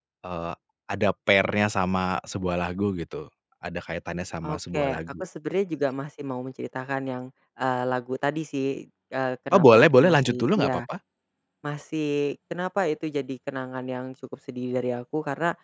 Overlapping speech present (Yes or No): Yes